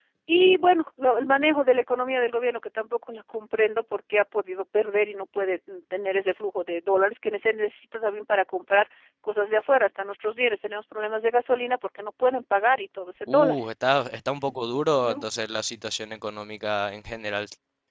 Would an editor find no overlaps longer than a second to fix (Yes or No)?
Yes